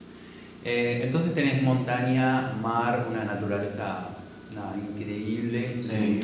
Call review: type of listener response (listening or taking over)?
listening